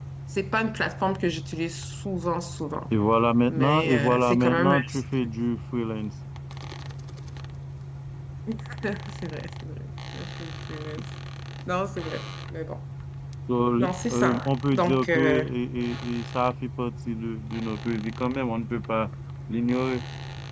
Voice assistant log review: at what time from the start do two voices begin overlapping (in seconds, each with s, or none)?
3.5 s